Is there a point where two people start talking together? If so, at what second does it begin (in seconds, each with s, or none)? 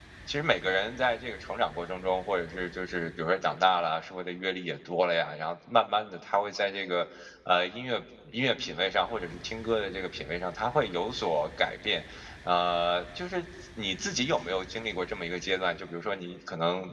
none